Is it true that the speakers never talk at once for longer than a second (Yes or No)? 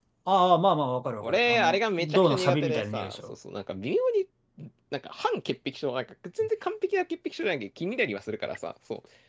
No